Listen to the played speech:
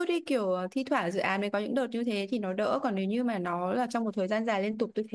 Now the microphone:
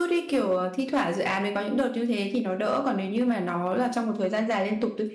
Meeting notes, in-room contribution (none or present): none